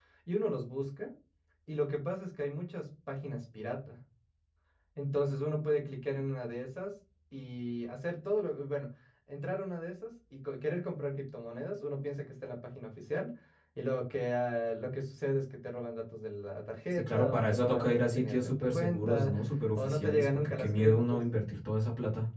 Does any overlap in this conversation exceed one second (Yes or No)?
Yes